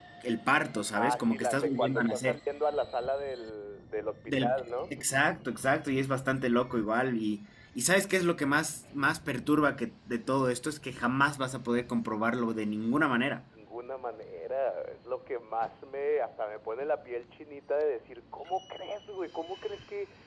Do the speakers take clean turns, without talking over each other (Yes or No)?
No